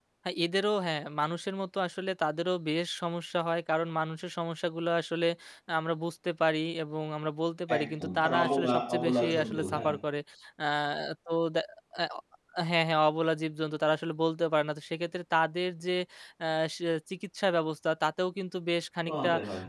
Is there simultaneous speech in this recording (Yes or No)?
Yes